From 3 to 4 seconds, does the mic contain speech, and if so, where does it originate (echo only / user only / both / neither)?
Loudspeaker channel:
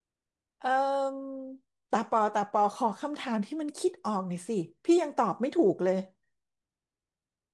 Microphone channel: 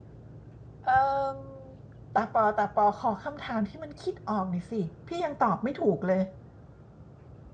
echo only